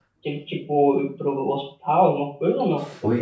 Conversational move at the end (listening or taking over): taking over